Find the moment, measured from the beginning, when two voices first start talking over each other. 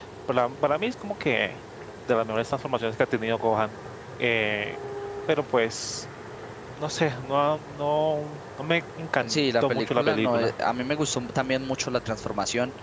9 s

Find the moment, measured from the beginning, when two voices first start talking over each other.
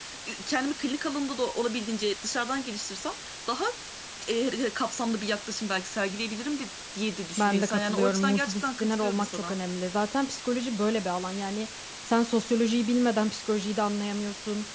7 s

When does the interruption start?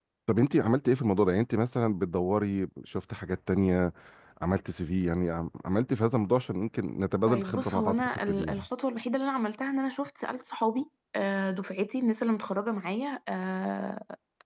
7 s

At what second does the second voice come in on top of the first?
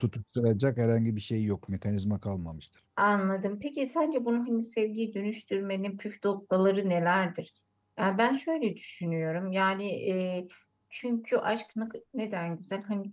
none

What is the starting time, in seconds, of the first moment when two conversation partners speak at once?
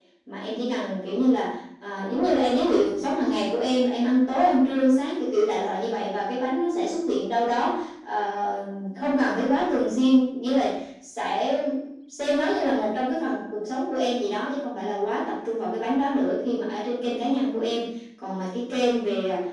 none

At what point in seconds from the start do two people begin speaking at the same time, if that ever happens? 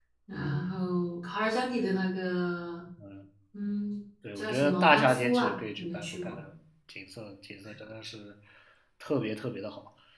4 s

